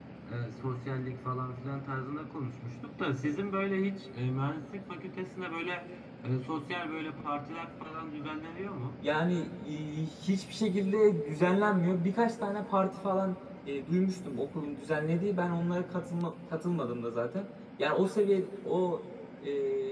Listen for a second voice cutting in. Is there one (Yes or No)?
No